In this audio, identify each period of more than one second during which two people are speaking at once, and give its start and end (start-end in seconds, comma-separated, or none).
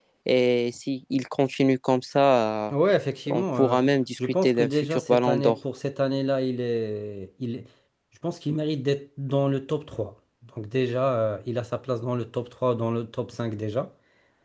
4.2-5.6